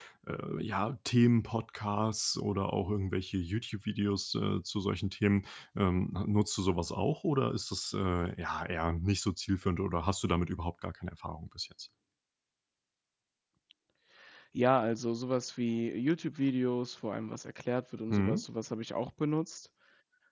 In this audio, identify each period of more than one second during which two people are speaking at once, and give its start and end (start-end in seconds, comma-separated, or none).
none